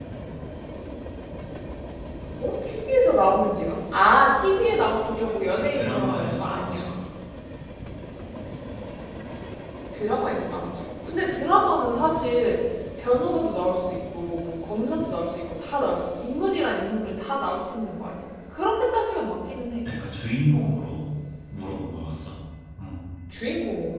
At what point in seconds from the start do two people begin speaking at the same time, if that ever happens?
5.6 s

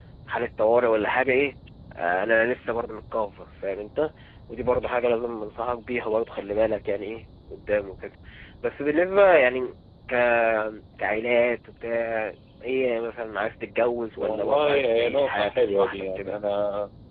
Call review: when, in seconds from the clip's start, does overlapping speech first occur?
14.2 s

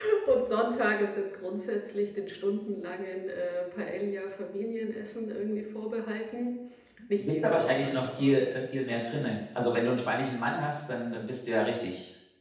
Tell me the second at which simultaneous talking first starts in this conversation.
7.2 s

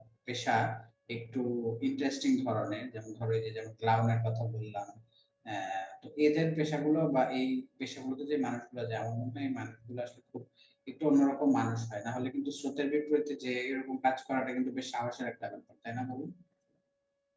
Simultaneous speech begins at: none

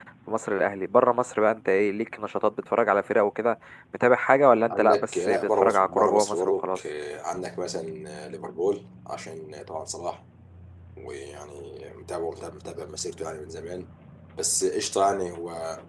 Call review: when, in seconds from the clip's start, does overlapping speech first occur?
4.7 s

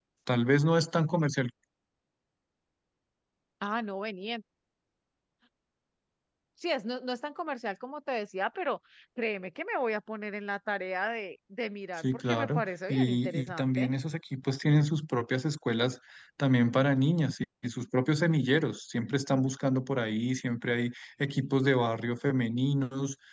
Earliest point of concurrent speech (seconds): 12.0 s

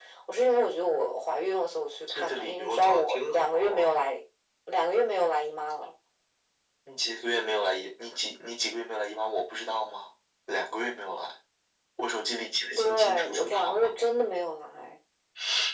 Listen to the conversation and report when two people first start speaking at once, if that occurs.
2.0 s

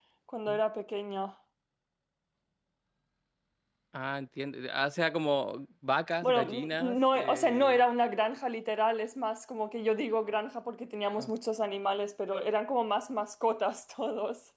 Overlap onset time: 6.2 s

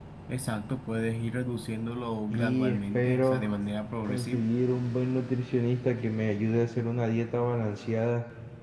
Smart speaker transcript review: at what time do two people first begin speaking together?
2.3 s

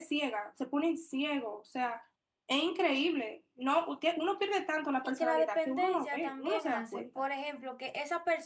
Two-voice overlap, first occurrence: 5.0 s

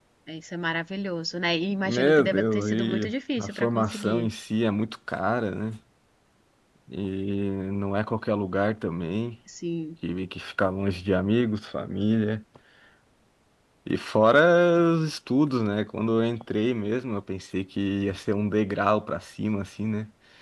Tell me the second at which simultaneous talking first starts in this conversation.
1.8 s

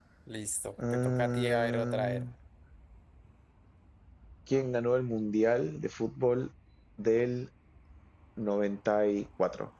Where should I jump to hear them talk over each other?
0.9 s

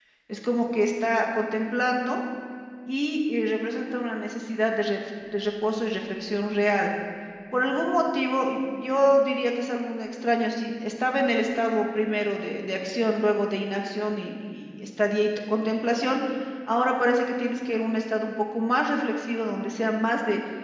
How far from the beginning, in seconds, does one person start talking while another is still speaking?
none

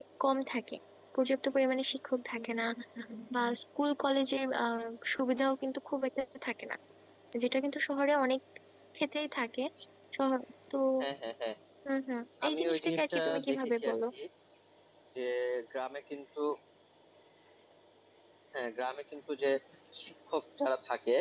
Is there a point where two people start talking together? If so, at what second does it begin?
12.5 s

